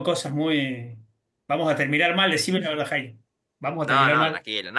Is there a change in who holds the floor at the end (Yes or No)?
Yes